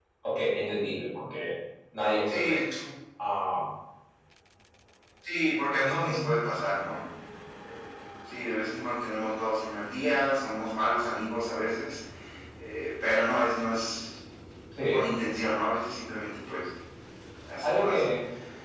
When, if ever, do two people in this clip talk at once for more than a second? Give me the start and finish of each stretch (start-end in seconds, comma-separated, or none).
none